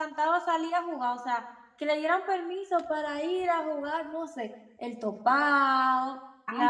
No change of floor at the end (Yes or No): No